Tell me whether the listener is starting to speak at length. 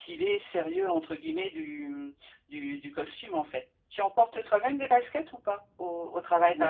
Yes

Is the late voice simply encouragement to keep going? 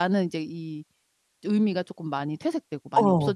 No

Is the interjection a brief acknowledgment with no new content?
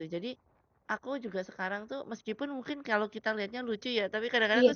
Yes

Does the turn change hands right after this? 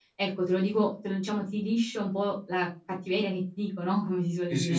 Yes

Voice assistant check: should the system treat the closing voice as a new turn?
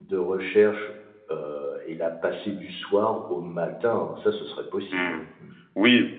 Yes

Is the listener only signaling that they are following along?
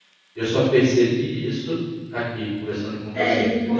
No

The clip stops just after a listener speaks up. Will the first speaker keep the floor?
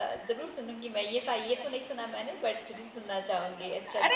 No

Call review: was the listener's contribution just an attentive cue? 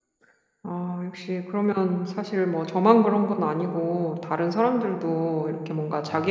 Yes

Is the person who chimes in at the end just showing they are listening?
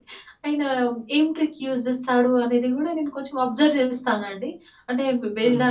Yes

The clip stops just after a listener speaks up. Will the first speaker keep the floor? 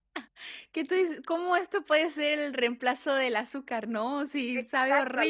No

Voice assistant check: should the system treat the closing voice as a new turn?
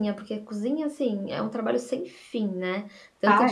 No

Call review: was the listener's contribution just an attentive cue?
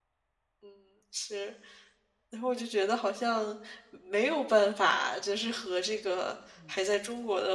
Yes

